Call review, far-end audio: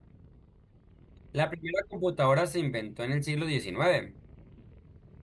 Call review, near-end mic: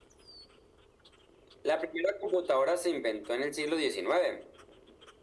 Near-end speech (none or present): none